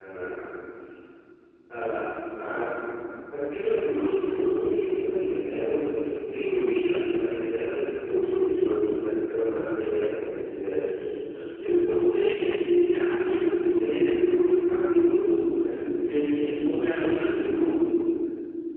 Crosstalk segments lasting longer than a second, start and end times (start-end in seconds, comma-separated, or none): none